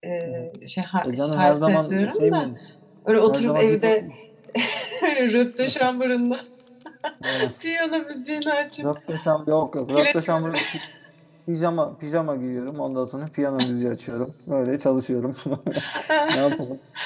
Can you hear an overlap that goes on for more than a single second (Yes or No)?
Yes